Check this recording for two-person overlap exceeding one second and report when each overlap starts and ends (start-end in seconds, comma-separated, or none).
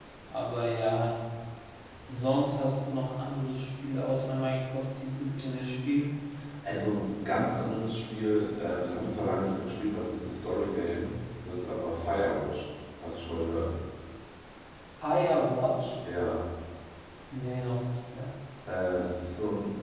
none